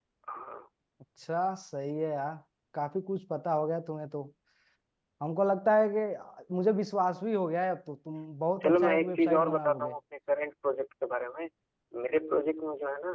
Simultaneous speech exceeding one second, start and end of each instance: 8.6-9.9

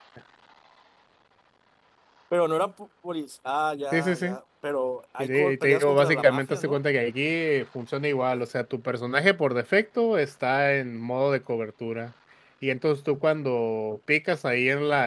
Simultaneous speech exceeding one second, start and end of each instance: 5.2-6.8

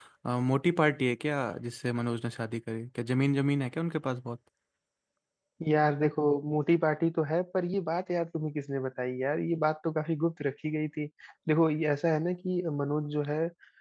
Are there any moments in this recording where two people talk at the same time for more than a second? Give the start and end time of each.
none

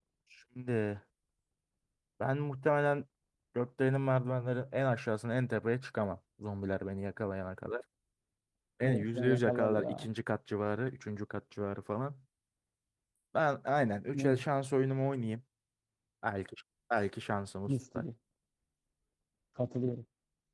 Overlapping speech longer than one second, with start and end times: 8.9-10.1

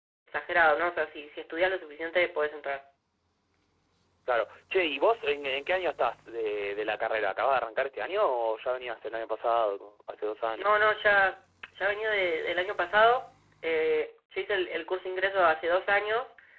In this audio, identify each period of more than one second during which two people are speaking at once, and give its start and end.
none

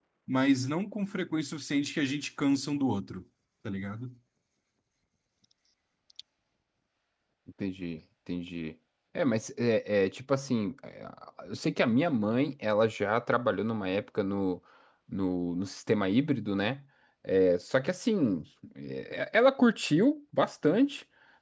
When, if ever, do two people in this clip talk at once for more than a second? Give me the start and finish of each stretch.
none

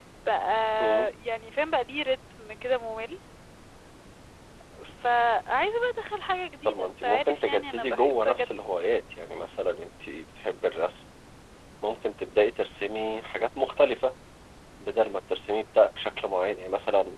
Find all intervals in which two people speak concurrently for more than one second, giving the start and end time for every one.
6.7-8.5

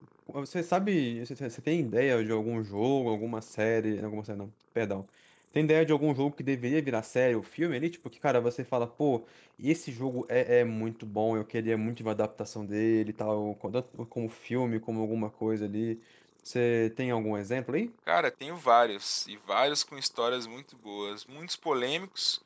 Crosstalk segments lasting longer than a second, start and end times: none

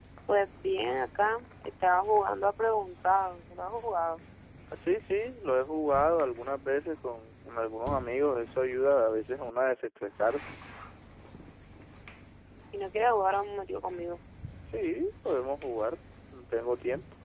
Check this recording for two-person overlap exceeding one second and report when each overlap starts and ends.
none

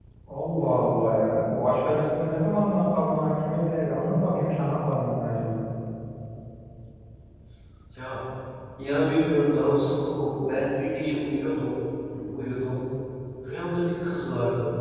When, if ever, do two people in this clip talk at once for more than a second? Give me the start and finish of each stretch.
none

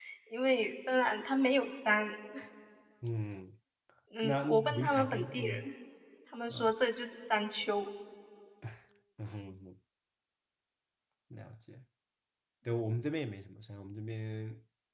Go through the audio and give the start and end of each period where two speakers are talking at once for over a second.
4.2-5.7

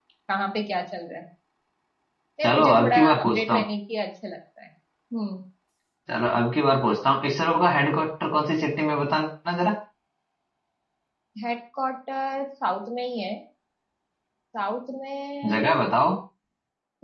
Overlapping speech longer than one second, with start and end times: 2.4-3.6

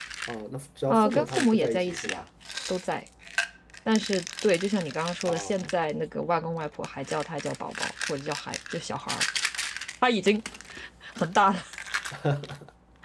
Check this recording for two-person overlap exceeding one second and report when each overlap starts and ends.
0.9-2.2

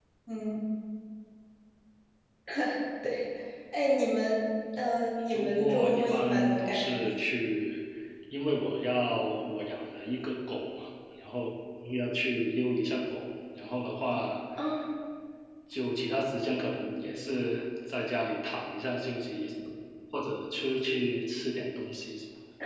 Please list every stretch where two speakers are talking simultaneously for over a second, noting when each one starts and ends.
5.3-7.0

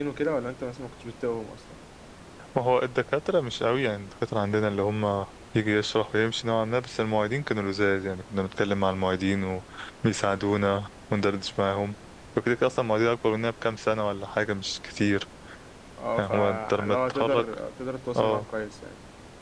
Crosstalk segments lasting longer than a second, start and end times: 16.2-17.4

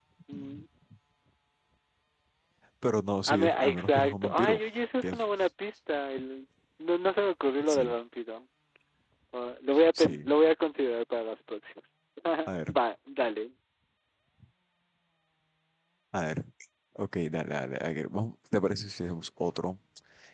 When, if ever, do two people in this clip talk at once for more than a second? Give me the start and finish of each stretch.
3.3-4.6

